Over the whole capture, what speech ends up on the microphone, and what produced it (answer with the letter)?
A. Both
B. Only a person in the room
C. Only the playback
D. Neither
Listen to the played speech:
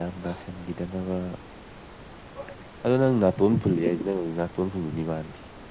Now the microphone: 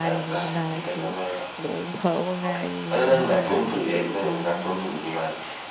A